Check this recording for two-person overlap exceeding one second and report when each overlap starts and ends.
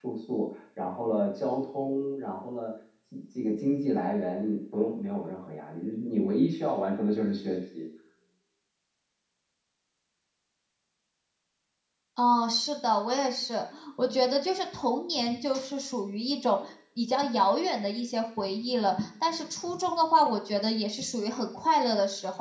none

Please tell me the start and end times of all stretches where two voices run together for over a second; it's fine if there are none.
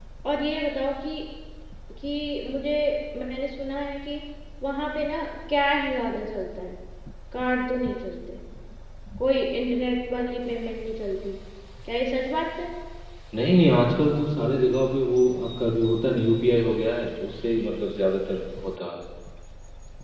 none

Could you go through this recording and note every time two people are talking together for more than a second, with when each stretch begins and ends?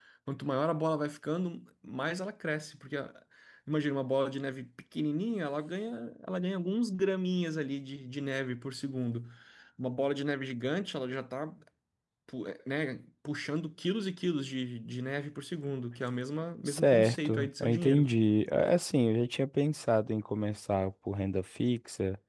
16.7-18.1

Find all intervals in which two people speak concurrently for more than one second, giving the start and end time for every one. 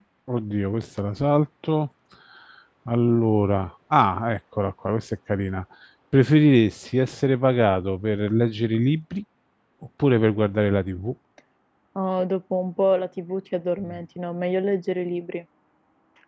none

